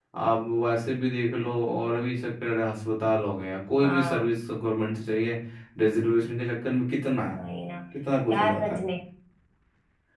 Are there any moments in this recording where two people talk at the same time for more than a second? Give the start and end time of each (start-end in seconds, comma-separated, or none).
none